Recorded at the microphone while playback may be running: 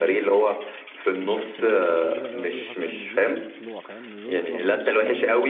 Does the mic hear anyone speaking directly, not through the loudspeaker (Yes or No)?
Yes